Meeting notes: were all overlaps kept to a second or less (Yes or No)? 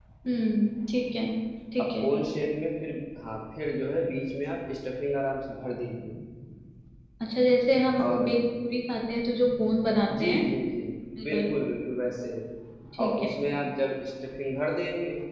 Yes